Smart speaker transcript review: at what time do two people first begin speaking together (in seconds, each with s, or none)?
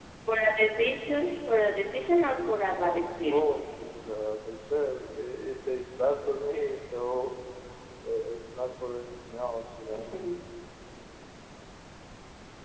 1.9 s